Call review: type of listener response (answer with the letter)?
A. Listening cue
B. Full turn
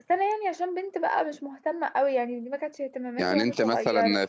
B